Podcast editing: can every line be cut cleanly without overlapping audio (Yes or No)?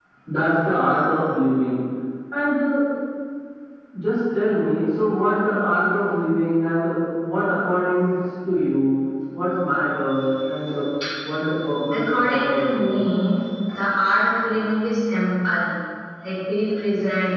No